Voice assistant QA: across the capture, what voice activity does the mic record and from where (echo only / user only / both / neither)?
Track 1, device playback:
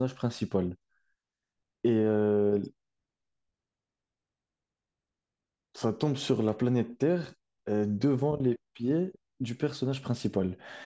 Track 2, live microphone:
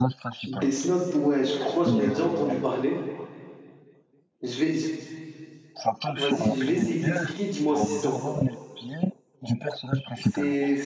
both